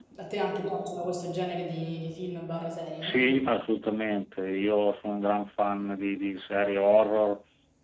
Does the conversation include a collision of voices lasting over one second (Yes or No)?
No